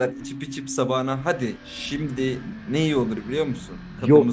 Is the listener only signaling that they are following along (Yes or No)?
No